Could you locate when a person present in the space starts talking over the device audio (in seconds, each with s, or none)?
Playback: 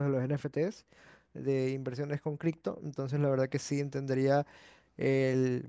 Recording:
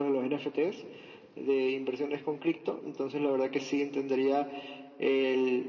none